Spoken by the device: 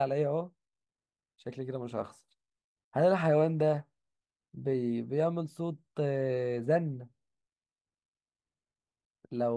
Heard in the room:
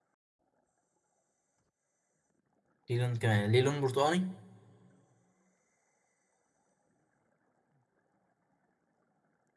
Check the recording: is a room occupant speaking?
Yes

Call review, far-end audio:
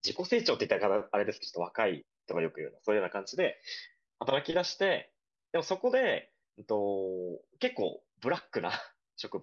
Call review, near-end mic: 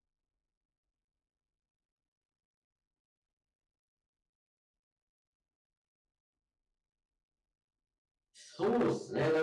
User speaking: Yes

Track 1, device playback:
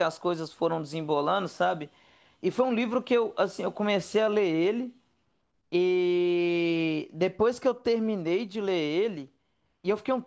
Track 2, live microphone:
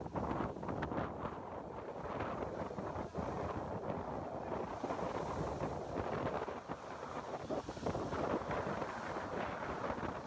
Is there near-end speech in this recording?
No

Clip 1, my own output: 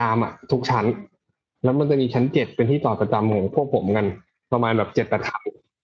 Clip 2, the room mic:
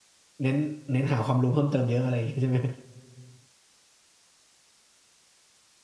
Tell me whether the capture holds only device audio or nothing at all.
No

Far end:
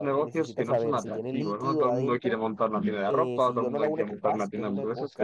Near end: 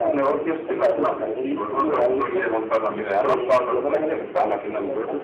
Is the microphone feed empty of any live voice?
Yes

